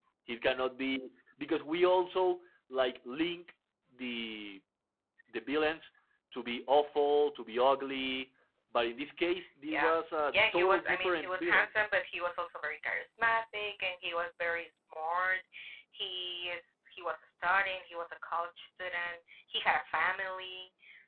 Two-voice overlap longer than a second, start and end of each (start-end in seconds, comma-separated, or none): 10.3-11.7